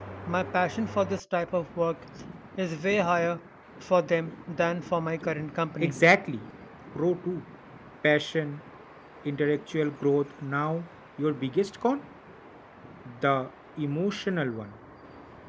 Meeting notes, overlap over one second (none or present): none